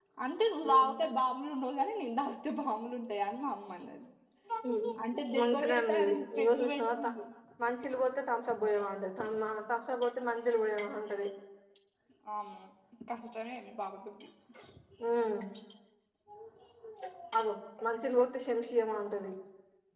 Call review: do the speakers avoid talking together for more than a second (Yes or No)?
No